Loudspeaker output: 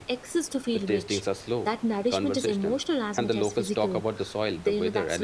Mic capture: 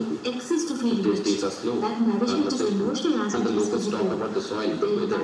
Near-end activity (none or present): none